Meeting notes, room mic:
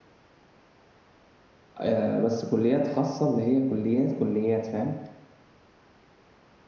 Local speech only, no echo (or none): آه، بس كليات خاصة اللي هي كليات كليات فاهم